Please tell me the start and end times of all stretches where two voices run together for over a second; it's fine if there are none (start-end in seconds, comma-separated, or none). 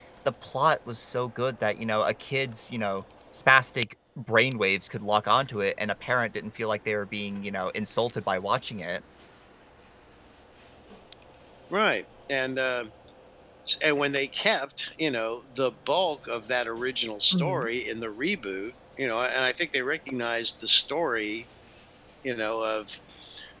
none